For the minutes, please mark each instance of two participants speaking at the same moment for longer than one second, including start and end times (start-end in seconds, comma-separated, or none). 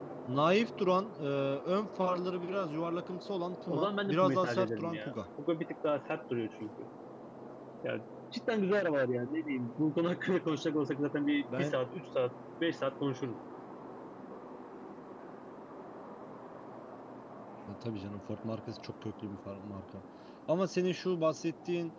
3.7-5.1